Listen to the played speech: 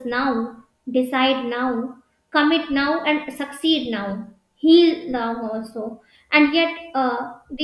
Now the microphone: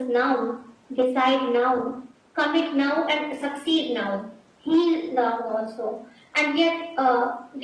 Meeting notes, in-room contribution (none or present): none